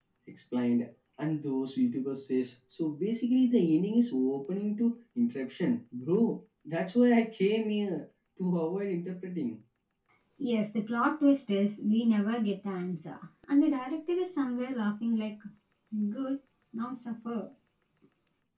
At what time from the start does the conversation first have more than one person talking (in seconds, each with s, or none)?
none